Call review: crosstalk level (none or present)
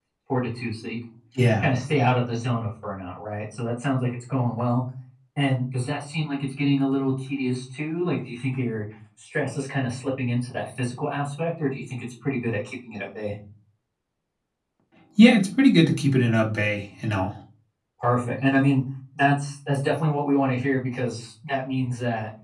none